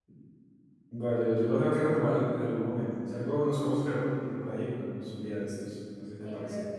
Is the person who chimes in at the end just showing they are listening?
No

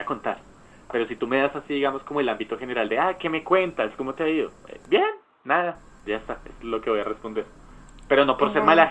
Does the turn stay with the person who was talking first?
Yes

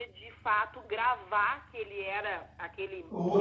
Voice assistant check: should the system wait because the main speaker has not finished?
No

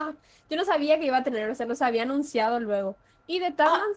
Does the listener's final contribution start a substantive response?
No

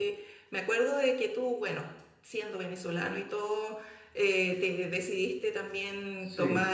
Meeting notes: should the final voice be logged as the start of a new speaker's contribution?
No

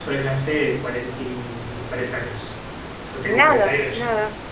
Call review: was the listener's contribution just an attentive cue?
No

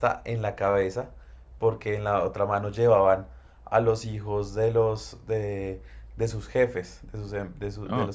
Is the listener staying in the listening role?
Yes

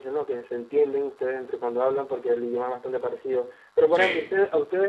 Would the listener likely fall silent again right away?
Yes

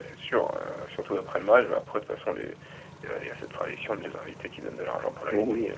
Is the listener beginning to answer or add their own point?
Yes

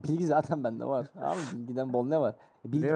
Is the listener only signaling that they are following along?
Yes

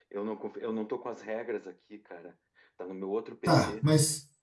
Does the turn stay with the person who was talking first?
No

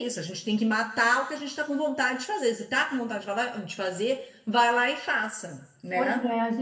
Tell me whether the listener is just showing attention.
No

